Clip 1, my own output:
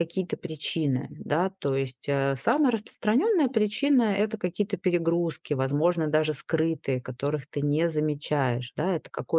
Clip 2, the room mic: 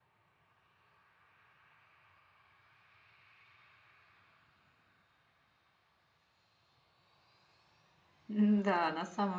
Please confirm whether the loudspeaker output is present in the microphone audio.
No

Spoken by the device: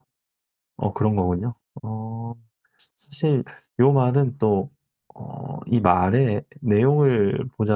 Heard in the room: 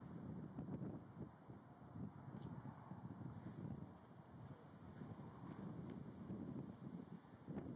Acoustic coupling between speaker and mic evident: No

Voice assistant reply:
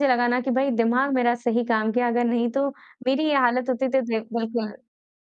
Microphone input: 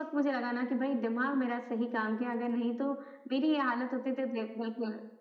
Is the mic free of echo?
No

